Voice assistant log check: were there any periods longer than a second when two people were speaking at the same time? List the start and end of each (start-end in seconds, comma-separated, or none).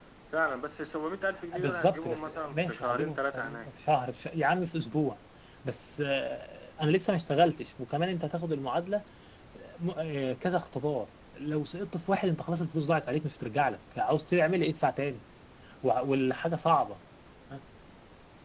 1.6-3.7